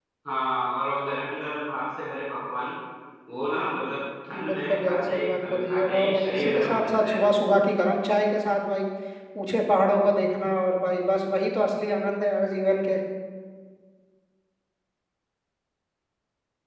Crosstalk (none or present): present